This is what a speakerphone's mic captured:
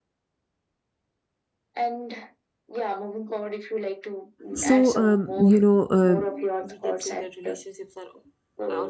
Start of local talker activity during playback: 5 s

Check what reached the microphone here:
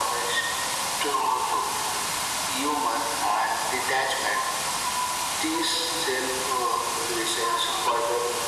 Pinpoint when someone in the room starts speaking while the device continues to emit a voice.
none

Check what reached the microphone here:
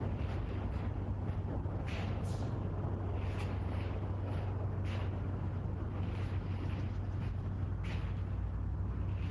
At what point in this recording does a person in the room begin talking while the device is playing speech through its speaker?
none

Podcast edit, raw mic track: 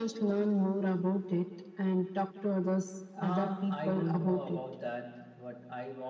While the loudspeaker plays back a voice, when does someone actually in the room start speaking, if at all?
none

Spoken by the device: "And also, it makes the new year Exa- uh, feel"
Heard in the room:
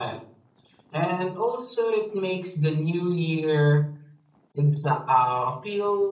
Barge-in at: none

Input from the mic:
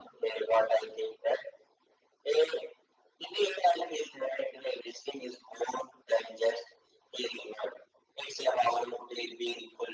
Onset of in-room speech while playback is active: none

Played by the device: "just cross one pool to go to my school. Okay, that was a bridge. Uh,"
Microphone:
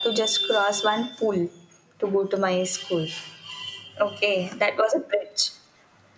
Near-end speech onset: none

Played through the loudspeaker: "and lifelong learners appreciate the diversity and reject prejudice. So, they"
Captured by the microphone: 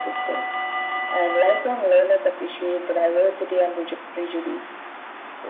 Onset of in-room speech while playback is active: none

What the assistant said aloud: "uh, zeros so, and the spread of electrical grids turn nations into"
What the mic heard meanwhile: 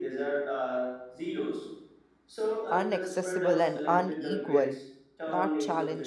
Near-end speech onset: 3 s

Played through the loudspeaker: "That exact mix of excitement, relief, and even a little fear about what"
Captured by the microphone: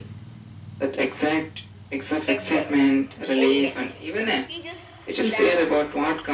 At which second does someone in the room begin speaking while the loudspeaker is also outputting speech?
2 s

